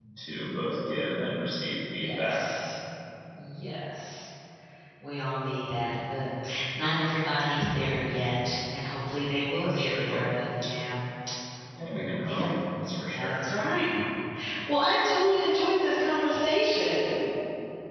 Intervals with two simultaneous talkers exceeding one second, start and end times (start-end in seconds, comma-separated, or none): none